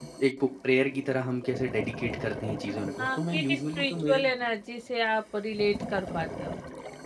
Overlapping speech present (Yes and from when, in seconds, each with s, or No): Yes, from 3.0 s